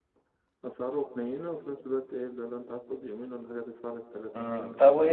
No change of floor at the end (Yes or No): No